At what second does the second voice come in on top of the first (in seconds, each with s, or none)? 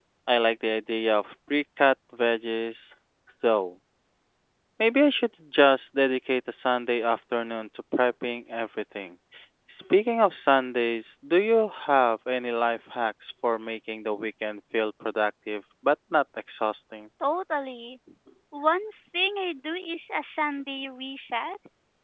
none